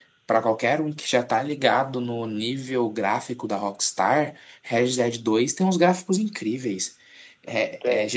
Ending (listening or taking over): listening